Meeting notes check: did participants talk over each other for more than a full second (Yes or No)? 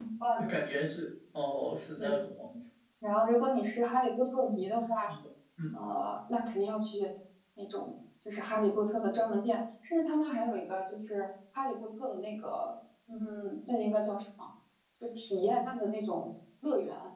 No